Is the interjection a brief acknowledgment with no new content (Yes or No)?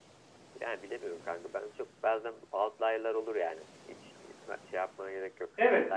No